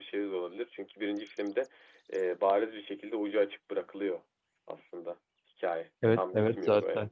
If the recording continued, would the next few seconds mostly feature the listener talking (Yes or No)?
Yes